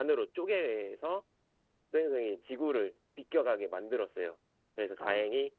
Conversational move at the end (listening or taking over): listening